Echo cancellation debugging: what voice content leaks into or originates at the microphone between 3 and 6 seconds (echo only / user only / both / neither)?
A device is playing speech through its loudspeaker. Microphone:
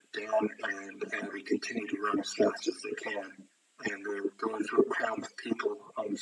echo only